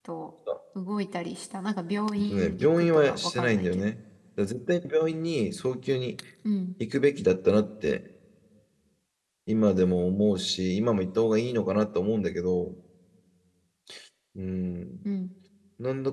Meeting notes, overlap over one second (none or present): present